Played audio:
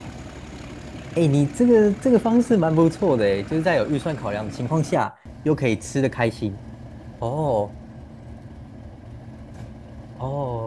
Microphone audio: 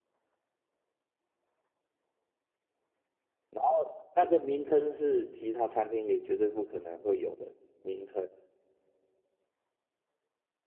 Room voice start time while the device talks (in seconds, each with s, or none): 3.5 s